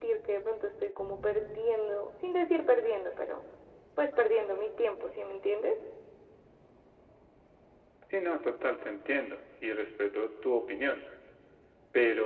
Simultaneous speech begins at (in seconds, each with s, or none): none